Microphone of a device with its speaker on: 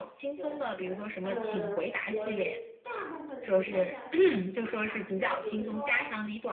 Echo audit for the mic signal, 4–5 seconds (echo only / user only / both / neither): both